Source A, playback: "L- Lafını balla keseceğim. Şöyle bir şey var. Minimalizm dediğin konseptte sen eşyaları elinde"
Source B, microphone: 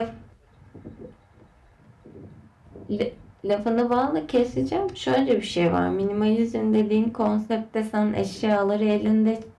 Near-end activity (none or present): none